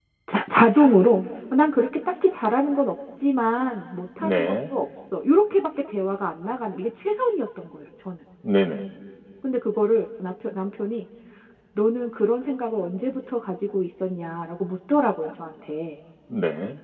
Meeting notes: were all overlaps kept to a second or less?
Yes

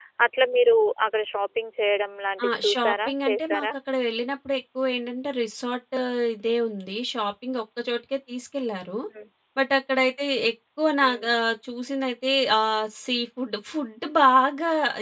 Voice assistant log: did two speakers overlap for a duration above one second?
Yes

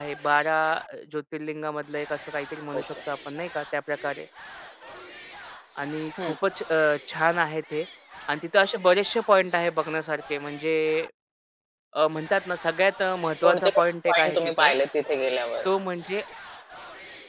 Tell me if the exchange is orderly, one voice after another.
No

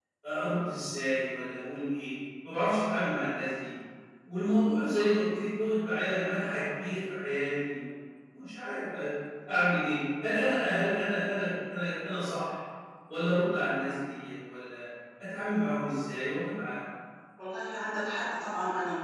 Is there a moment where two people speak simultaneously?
No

